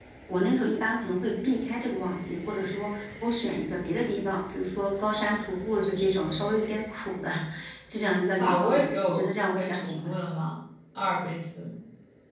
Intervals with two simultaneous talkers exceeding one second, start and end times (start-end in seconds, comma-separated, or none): 8.4-10.1